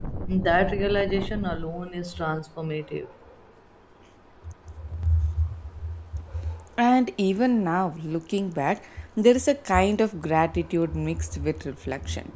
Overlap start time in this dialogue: none

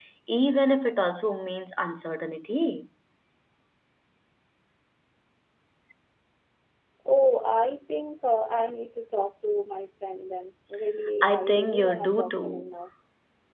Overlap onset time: 11.2 s

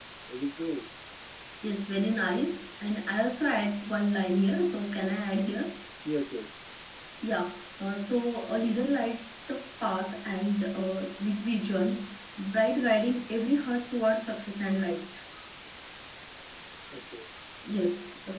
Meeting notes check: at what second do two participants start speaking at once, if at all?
none

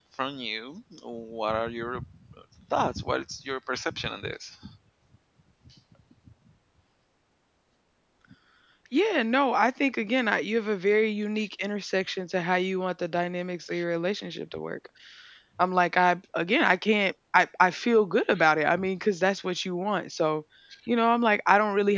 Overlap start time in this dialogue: none

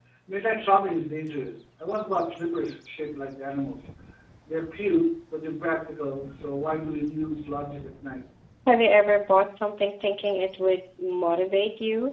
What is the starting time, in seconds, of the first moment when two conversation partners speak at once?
none

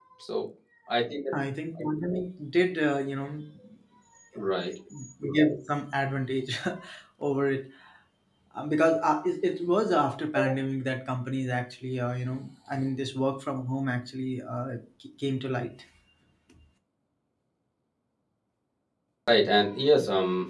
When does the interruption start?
none

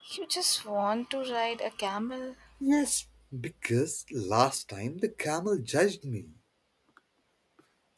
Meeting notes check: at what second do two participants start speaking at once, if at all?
none

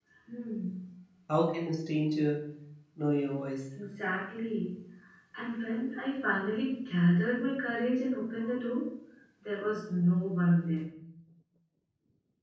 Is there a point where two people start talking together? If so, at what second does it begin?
none

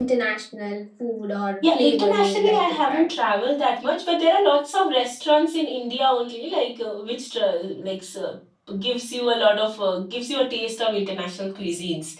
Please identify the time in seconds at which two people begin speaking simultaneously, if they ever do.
1.6 s

